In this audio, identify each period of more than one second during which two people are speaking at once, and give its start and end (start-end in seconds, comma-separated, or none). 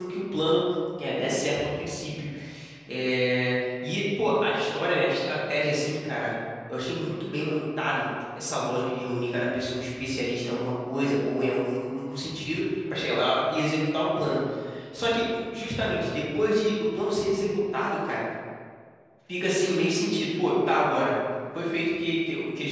none